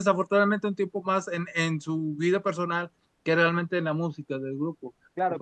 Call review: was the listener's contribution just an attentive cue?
No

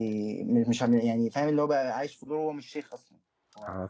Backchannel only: No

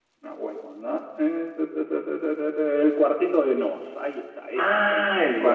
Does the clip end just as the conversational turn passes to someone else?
Yes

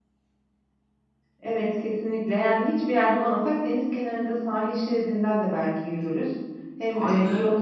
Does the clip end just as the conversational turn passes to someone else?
No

